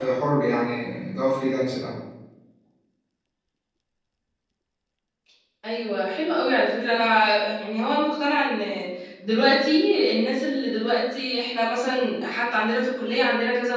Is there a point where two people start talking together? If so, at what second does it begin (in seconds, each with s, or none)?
none